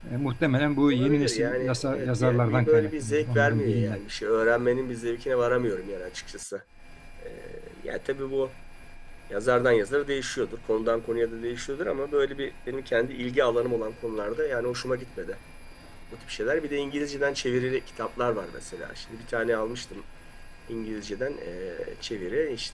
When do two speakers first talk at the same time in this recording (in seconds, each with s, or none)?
0.9 s